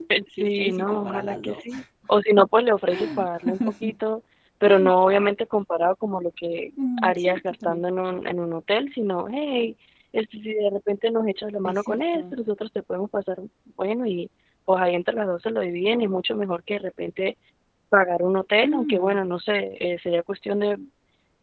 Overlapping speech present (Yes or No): Yes